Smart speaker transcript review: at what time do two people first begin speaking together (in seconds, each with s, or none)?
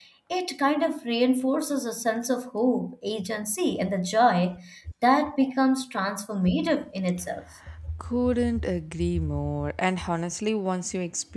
none